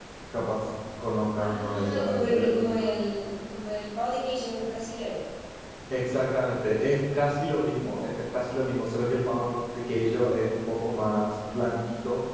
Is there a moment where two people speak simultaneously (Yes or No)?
Yes